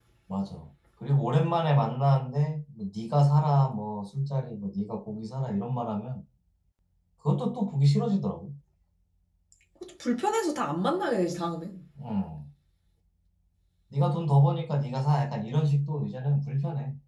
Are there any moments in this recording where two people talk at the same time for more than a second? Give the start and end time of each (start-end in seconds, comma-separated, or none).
none